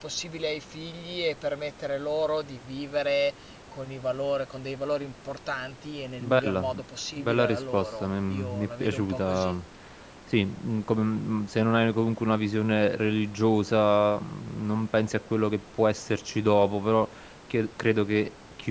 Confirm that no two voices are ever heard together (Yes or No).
No